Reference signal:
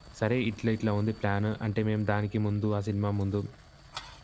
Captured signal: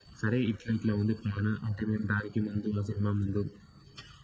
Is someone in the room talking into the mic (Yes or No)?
No